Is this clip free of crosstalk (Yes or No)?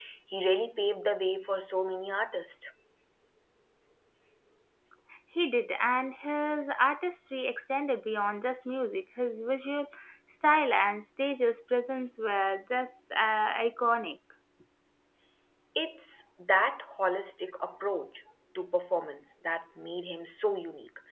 Yes